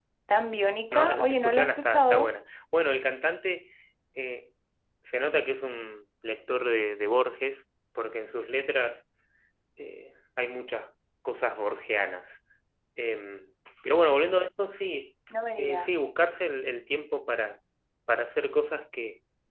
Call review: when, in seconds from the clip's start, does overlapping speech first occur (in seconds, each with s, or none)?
0.9 s